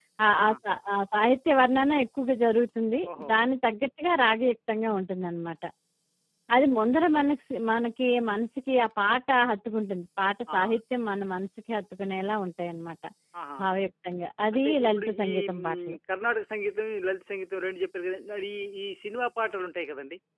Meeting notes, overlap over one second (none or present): present